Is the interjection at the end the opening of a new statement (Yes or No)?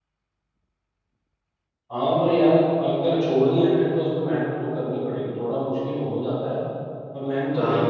No